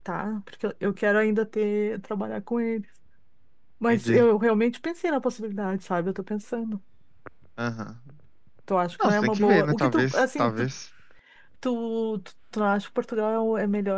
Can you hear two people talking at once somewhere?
Yes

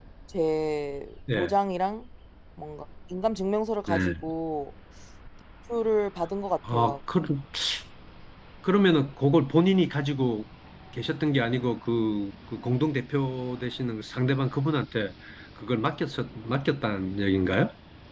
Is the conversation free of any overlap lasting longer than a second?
Yes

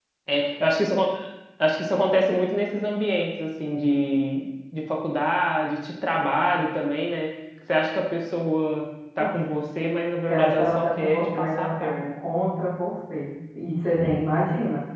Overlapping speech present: Yes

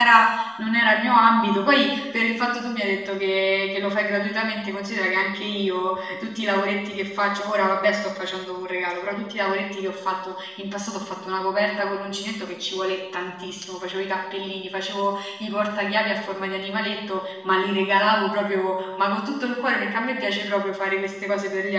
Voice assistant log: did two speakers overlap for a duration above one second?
No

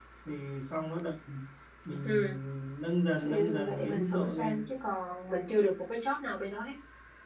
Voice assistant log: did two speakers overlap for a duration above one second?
Yes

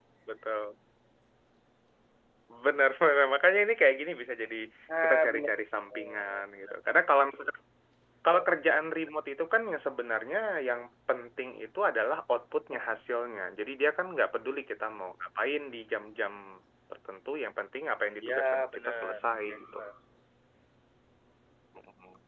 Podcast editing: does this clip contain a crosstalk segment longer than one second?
Yes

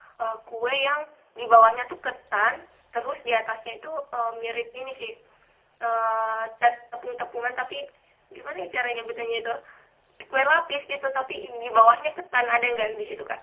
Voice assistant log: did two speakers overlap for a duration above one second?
No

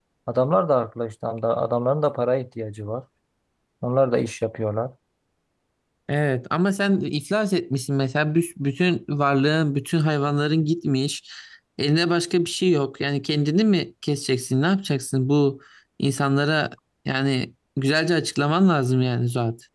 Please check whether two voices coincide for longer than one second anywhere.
No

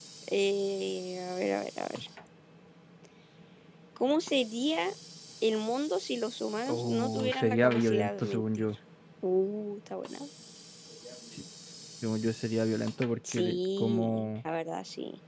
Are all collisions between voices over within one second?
No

